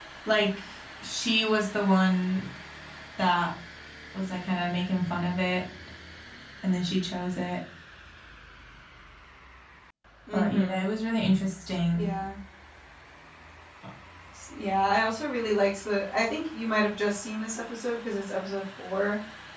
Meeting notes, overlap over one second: none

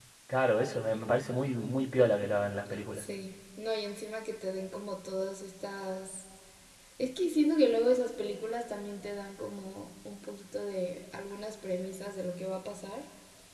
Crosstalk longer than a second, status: none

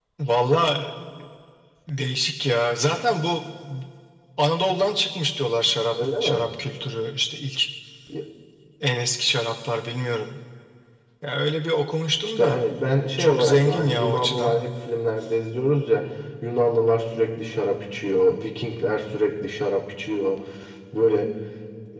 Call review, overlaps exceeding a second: present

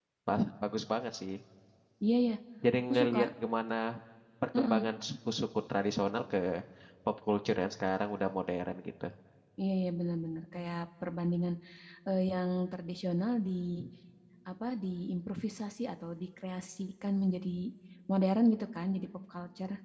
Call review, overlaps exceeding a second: none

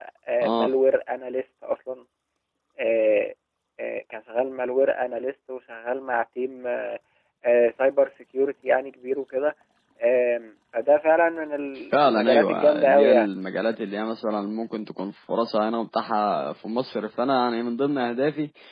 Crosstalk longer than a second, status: present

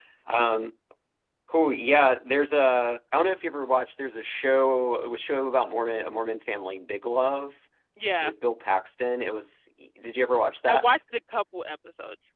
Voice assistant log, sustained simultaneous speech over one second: none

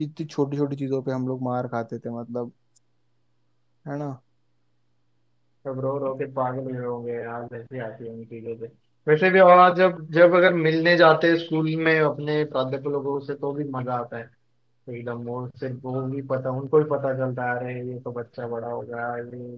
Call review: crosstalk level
none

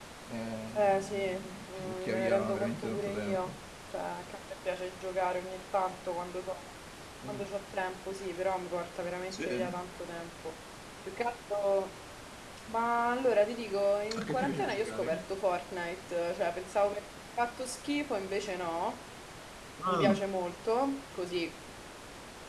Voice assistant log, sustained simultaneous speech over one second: present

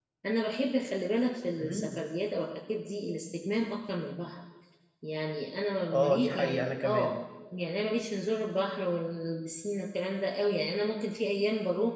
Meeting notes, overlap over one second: present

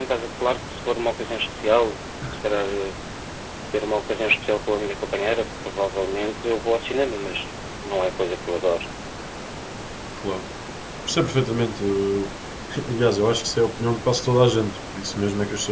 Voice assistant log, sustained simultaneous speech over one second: none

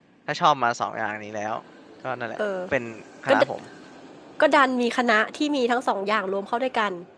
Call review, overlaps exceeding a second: none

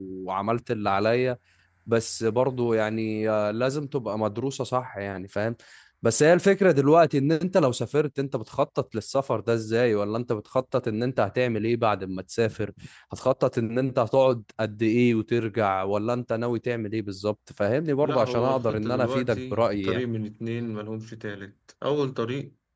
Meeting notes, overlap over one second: present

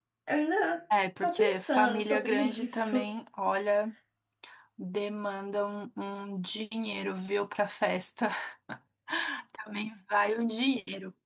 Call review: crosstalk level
present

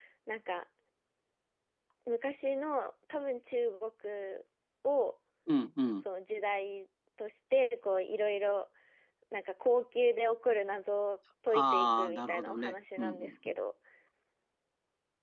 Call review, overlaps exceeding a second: present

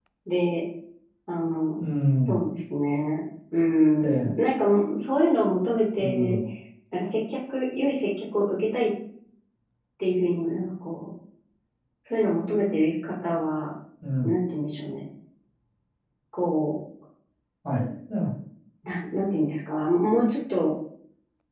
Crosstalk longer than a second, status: none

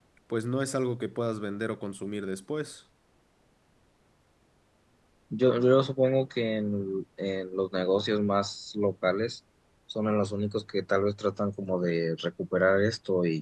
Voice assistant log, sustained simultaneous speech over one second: none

